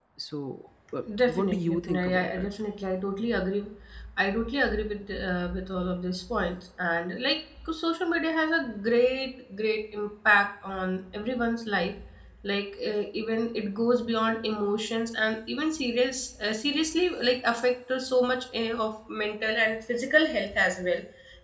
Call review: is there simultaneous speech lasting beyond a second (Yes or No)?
Yes